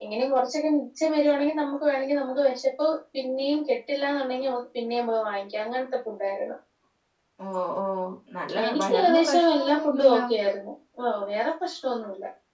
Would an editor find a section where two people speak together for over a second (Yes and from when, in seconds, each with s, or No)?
Yes, from 8.7 s